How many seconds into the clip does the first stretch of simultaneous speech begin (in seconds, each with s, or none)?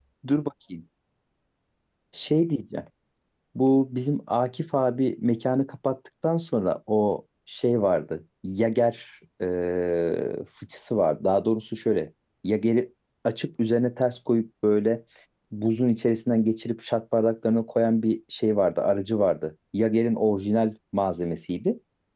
none